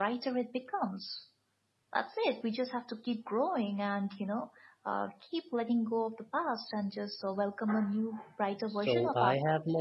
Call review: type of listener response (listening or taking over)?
taking over